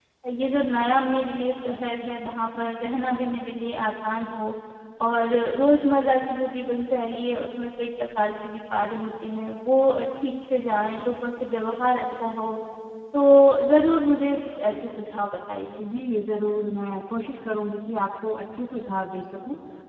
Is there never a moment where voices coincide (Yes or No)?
Yes